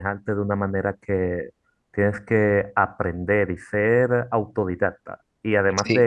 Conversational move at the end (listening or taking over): listening